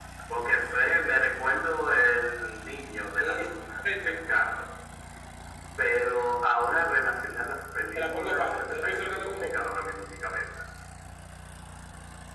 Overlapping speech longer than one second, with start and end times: 8.0-9.6

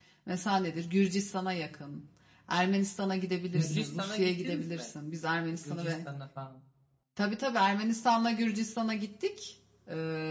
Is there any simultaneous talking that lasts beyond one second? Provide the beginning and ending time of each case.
3.5-4.9

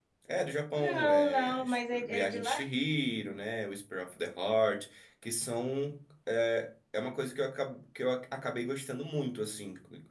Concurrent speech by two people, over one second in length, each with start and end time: 0.8-2.6

